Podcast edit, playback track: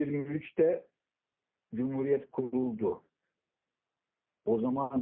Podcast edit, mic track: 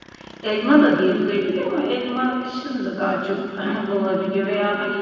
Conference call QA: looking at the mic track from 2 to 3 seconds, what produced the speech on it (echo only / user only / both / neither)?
user only